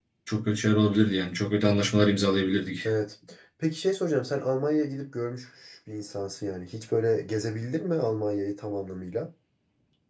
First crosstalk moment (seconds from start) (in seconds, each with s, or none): none